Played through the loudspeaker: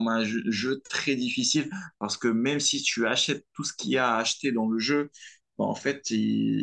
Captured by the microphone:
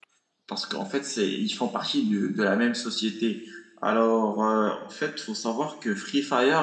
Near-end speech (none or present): present